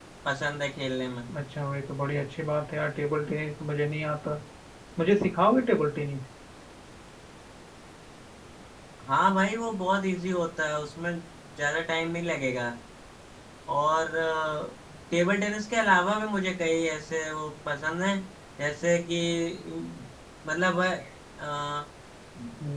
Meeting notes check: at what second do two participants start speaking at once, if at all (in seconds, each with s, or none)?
none